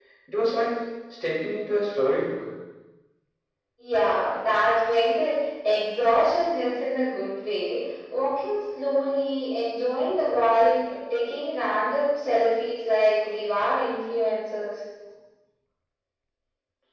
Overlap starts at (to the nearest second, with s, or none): none